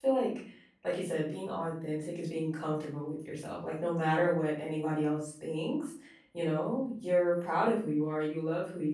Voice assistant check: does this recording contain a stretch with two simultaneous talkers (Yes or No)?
No